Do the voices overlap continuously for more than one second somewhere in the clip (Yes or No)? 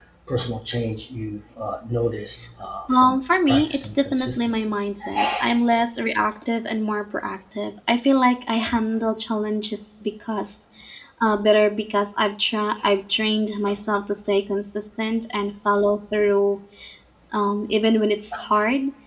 Yes